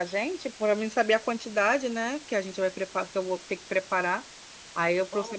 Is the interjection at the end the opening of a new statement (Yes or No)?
Yes